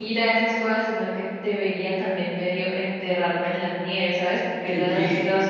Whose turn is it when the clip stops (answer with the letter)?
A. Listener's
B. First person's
B